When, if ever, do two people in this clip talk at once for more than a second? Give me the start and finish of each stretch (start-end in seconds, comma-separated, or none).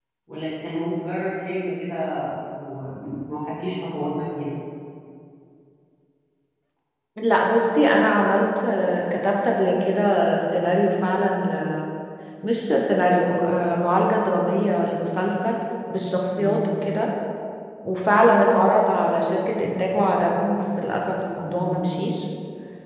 none